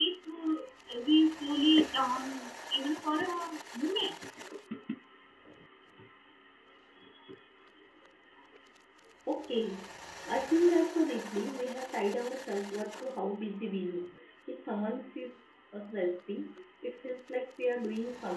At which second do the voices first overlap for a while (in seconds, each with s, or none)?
none